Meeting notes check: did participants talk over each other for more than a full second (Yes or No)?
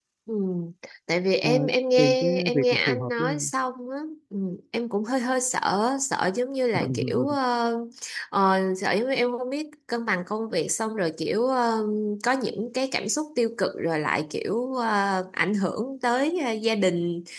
Yes